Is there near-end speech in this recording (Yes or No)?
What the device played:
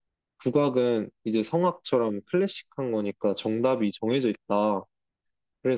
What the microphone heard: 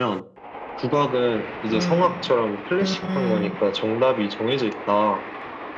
Yes